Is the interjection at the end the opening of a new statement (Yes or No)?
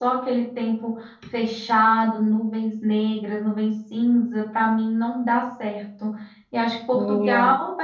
No